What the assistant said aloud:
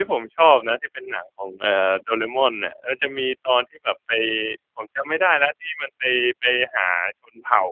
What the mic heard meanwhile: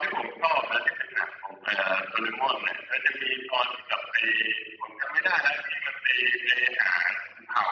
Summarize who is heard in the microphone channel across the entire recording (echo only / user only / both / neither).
echo only